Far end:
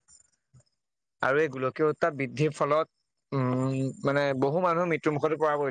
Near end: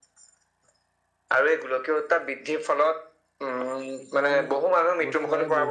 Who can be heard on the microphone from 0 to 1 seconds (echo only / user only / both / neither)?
neither